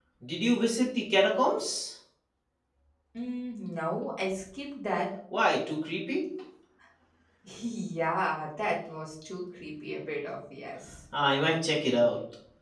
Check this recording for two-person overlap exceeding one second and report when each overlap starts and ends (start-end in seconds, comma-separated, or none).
none